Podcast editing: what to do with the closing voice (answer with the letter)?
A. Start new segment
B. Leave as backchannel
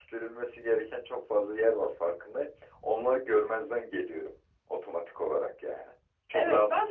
A